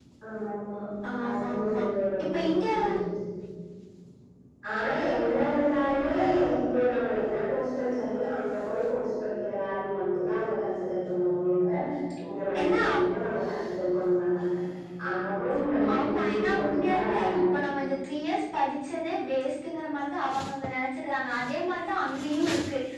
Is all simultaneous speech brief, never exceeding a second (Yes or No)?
No